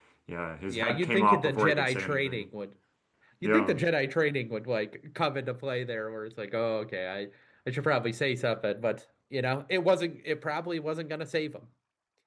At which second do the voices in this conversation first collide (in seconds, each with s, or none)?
0.7 s